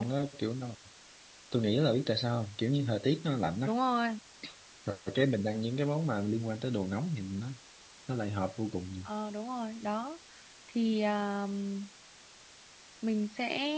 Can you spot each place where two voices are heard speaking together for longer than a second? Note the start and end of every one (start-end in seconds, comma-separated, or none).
none